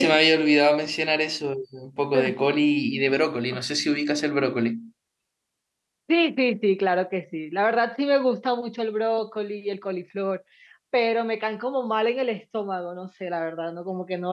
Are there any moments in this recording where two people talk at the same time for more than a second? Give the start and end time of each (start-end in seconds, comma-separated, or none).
none